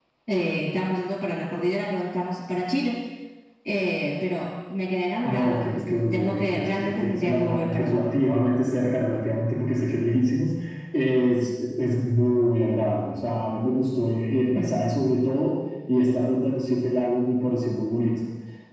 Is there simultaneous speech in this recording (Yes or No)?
Yes